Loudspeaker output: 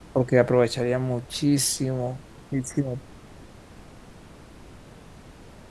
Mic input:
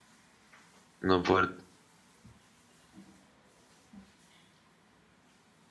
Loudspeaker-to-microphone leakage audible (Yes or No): No